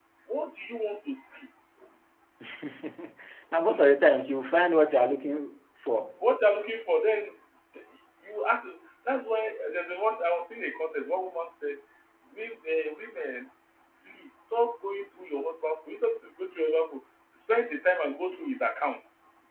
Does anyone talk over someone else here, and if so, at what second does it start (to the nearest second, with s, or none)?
none